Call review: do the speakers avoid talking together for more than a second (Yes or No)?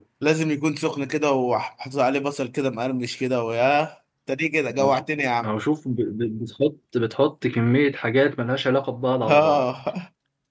Yes